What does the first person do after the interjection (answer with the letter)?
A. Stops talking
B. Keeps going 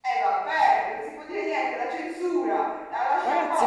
A